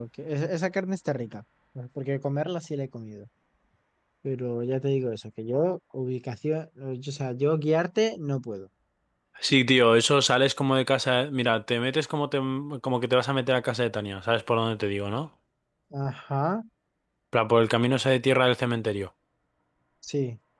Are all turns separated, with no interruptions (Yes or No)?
Yes